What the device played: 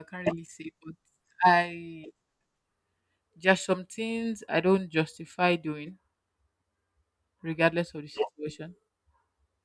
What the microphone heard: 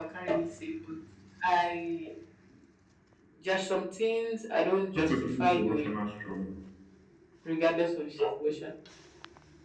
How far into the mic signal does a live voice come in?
4.9 s

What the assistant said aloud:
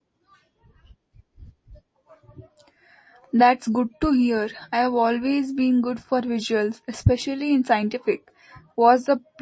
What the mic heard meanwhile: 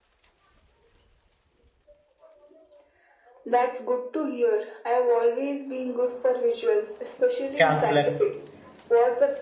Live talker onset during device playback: 7.6 s

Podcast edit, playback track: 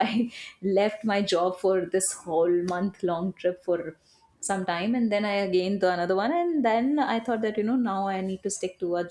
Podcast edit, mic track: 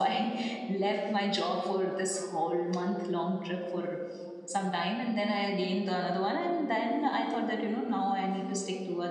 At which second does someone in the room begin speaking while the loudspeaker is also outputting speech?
none

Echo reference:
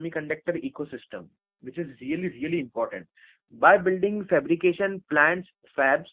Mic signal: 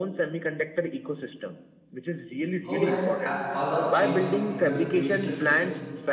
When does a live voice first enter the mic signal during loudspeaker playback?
2.6 s

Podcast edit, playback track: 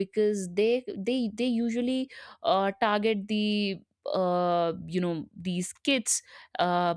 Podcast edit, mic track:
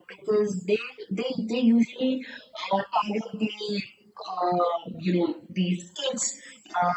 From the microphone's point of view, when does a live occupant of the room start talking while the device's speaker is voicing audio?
none

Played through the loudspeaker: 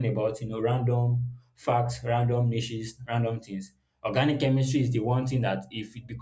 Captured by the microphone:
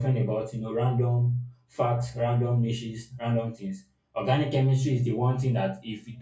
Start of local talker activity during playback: none

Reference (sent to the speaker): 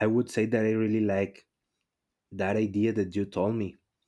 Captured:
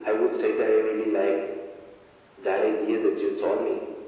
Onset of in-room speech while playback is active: none

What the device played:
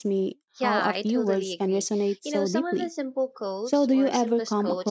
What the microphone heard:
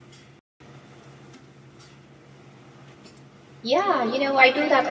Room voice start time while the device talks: 3.6 s

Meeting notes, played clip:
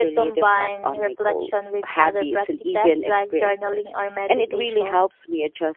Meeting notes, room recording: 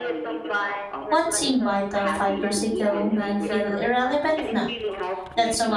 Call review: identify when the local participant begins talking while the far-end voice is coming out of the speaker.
1.1 s

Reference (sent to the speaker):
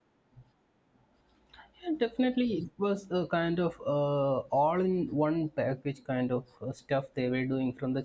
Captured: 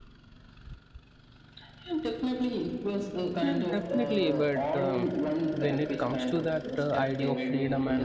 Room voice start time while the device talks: 3.4 s

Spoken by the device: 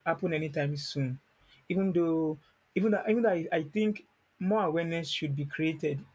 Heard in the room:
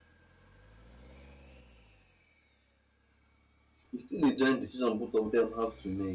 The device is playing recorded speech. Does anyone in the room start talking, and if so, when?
3.9 s

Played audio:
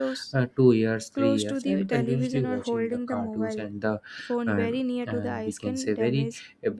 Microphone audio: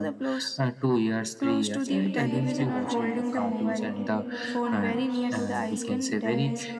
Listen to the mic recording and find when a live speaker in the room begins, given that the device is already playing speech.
1.9 s

